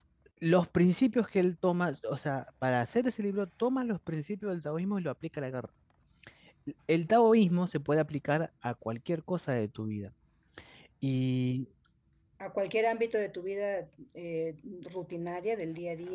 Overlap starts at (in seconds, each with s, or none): none